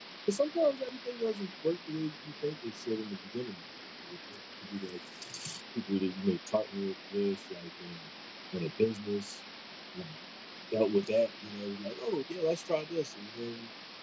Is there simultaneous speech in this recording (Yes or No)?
No